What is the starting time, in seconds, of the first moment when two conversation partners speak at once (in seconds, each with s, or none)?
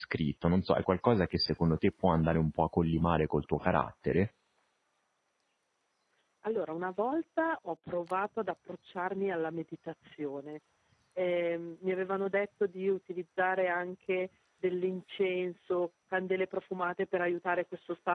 none